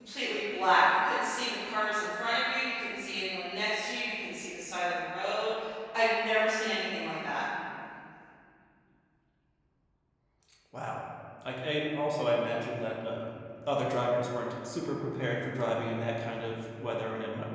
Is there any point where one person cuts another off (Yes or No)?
No